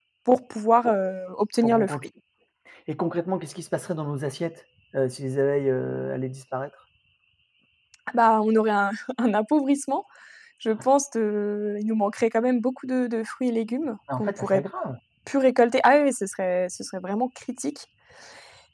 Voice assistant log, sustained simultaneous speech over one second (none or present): none